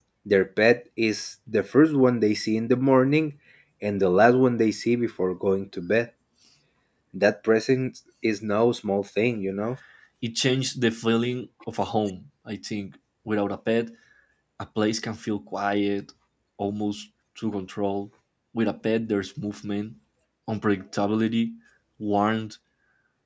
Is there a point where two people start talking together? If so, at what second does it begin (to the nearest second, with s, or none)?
none